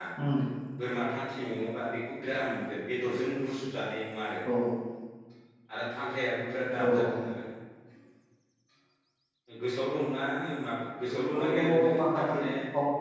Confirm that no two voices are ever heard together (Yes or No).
No